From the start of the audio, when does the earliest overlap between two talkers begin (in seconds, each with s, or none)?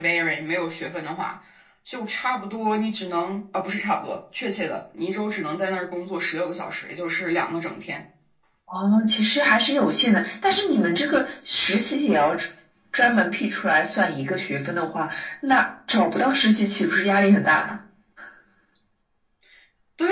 none